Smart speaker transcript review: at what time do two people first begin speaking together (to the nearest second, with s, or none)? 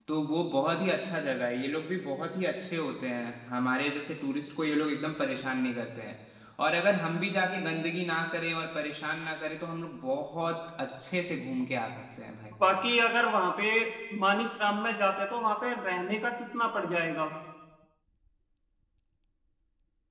none